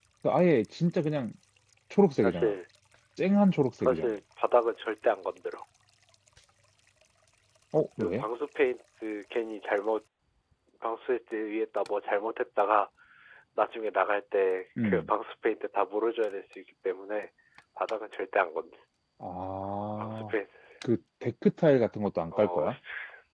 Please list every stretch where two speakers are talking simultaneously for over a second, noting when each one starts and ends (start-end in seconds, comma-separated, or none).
none